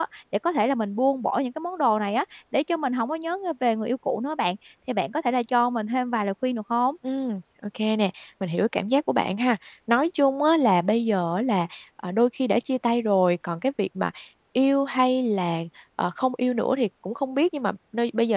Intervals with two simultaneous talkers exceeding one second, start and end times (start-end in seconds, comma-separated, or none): none